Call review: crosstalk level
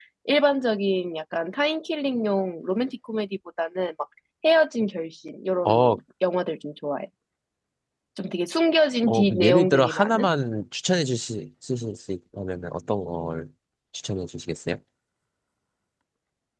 present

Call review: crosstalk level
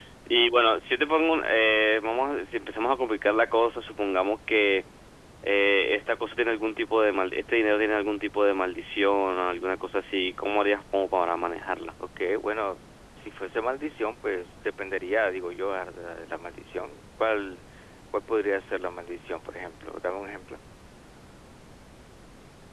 none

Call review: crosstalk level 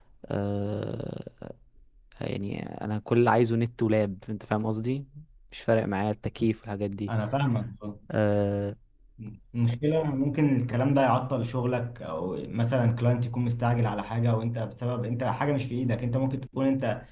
none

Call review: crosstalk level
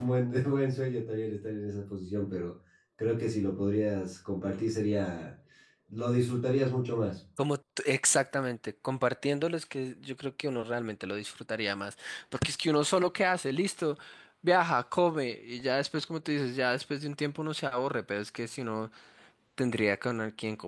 none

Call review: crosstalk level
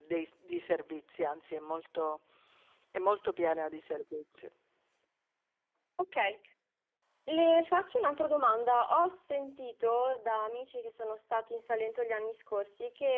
none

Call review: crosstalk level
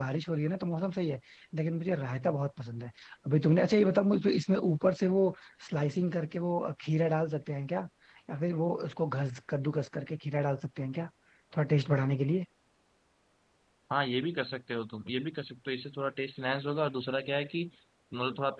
none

